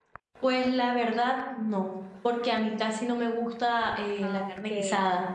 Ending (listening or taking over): listening